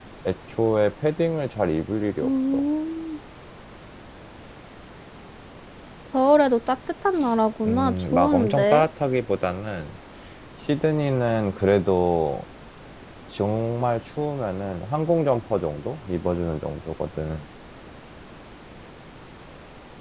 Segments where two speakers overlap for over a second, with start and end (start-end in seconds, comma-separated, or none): 7.7-8.8